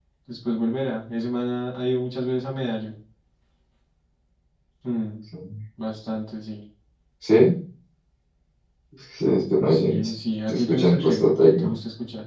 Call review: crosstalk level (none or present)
present